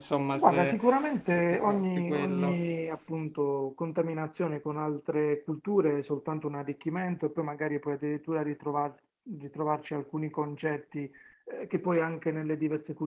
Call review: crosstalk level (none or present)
present